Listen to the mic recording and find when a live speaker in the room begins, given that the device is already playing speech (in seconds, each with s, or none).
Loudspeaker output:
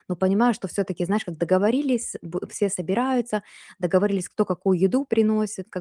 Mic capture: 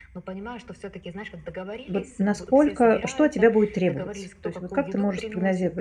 1.9 s